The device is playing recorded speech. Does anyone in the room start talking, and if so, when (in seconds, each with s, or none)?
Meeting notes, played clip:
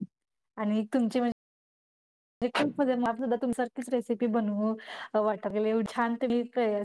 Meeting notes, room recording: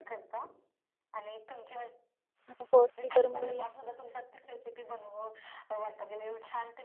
2.5 s